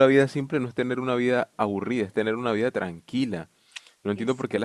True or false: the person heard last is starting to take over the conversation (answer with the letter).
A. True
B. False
B